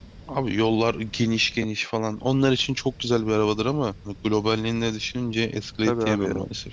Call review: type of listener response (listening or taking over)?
taking over